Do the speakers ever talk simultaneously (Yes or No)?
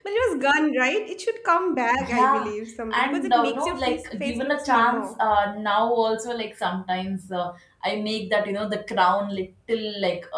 Yes